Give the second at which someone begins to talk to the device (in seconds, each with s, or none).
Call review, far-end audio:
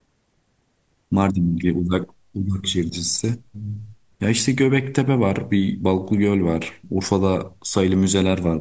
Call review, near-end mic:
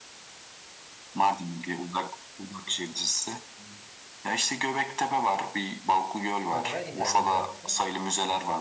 6.5 s